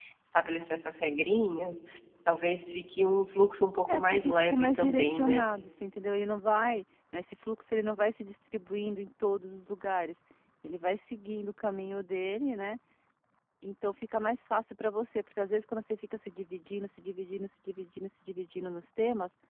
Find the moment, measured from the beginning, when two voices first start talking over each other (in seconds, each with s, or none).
3.9 s